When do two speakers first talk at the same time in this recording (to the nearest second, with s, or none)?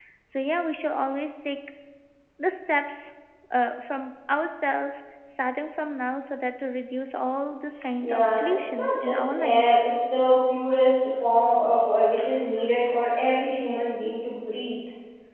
8 s